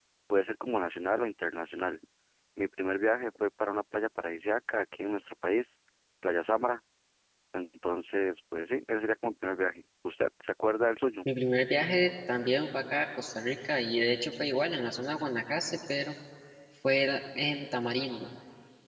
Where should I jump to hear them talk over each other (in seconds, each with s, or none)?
none